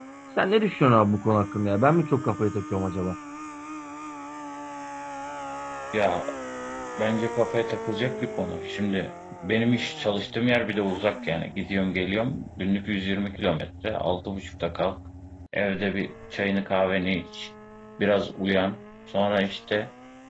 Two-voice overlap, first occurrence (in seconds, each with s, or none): none